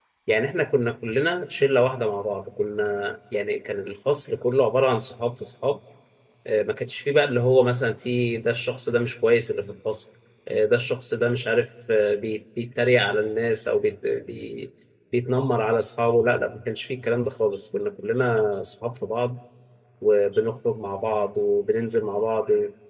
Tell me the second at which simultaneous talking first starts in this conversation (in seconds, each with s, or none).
none